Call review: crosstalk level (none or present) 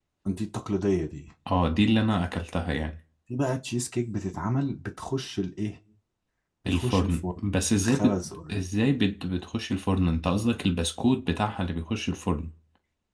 present